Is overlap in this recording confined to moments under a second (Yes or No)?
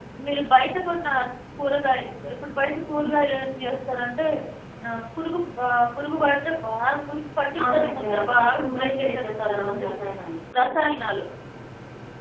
No